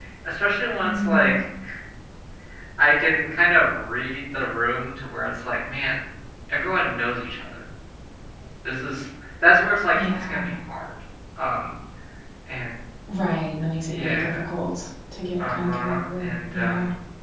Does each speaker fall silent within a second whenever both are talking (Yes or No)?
No